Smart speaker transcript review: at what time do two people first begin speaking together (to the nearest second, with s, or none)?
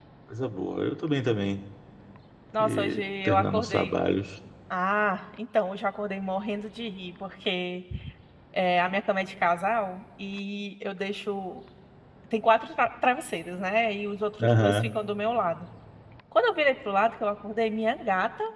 3 s